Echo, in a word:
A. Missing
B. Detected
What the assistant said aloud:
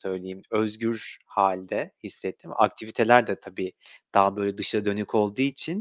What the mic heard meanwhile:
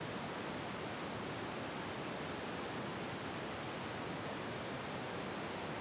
A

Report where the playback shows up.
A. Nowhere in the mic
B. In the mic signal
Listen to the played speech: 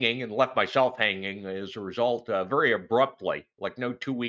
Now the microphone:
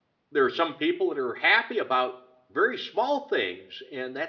A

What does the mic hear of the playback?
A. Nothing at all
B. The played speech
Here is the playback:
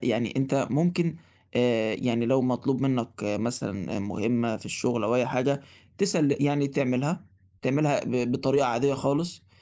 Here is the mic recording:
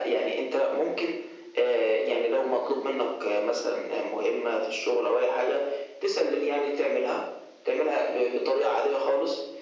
B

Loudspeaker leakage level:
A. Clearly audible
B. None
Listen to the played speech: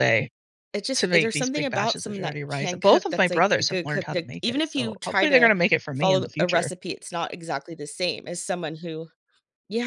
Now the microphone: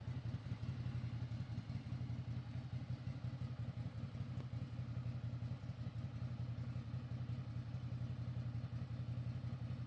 B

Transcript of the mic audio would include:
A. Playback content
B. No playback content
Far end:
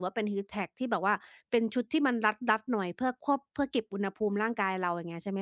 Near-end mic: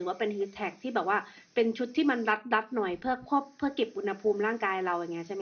A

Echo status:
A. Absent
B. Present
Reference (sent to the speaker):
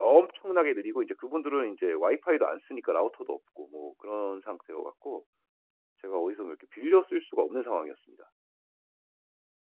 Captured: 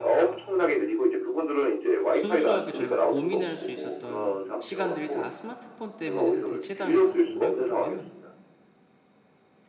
B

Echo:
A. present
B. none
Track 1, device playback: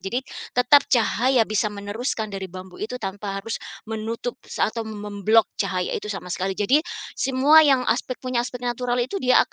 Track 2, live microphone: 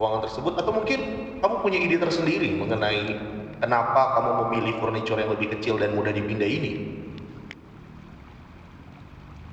B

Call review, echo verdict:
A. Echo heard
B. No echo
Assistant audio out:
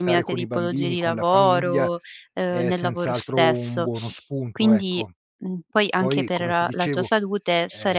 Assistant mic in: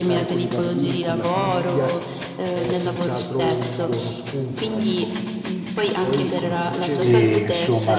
A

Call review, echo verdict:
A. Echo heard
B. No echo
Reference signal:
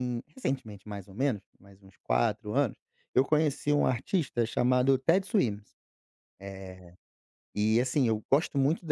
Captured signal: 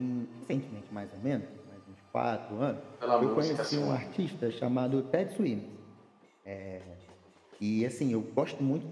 A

